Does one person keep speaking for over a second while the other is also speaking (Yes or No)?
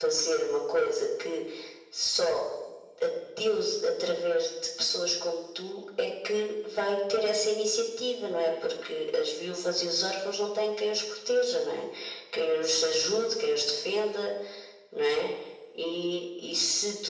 No